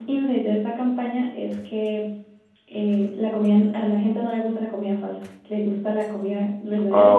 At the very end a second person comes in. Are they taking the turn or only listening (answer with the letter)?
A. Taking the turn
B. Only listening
A